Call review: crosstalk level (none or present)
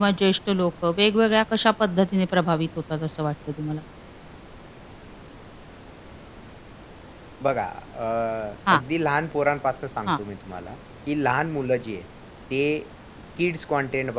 none